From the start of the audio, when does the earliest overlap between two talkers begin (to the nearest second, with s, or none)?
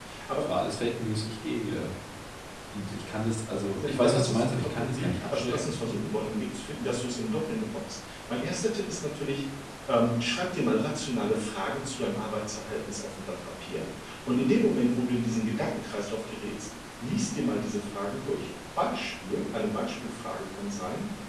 4 s